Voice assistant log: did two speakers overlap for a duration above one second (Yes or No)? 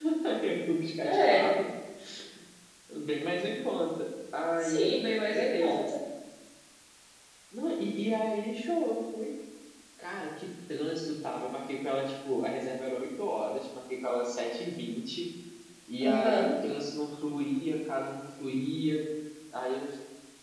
No